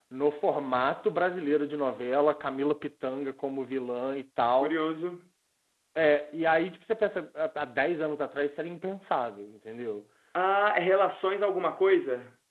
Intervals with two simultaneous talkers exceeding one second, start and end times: none

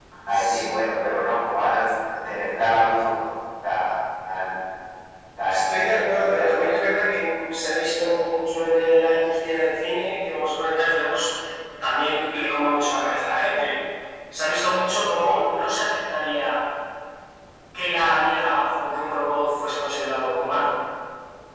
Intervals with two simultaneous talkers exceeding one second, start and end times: 5.5-6.8

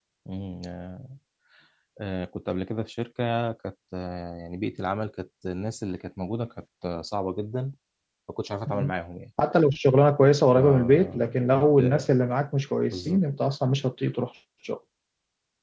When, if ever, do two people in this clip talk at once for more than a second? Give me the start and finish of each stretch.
10.6-12.0

